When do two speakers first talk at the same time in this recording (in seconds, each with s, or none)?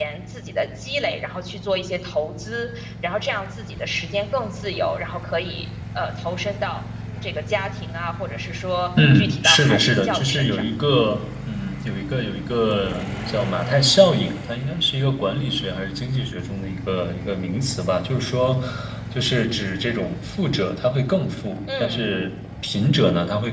9.1 s